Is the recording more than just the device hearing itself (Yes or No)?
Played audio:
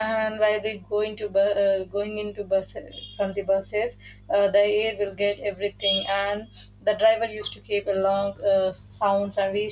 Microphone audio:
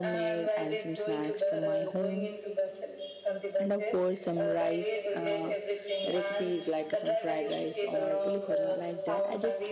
Yes